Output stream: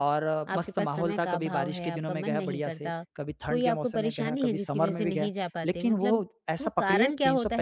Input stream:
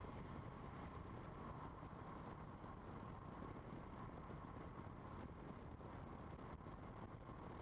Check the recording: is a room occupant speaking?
No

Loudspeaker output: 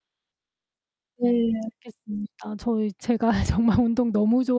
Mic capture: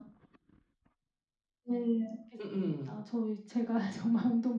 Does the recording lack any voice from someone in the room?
No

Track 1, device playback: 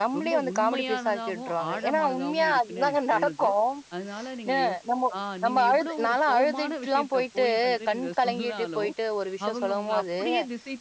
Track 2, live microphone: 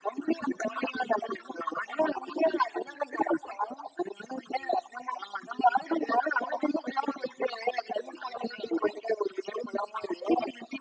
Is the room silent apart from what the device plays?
Yes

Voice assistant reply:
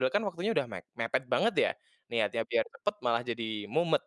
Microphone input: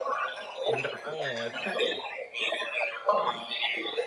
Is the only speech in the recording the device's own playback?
No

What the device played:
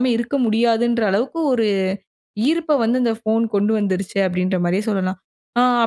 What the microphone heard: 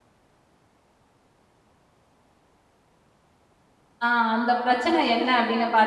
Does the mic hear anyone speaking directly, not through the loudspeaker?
Yes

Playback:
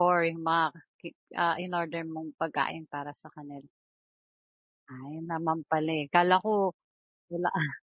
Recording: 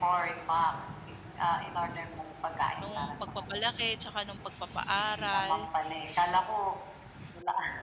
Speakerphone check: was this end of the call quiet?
No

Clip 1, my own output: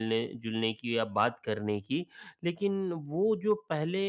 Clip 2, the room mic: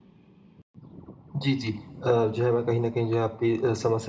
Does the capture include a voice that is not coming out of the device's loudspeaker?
Yes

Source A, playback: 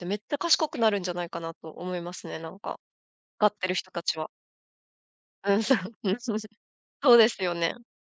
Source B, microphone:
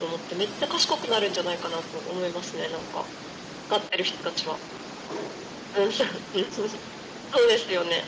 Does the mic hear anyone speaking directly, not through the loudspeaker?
No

